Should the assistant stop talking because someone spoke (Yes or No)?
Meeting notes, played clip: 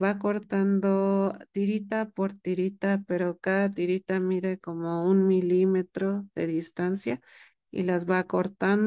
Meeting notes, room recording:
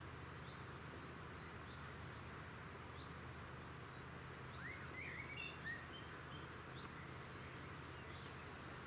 No